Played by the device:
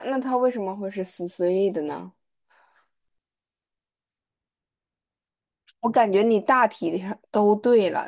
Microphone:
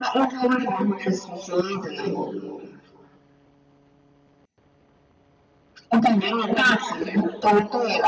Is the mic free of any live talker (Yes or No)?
Yes